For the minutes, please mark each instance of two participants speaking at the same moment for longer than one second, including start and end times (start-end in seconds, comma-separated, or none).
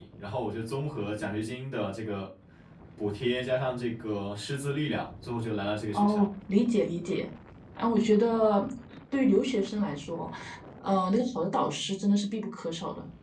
none